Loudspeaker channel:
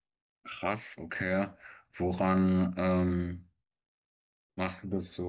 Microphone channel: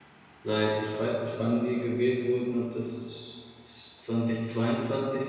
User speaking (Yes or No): Yes